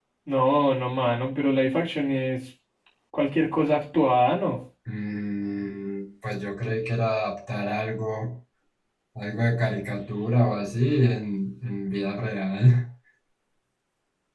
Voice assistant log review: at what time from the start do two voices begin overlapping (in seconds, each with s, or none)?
none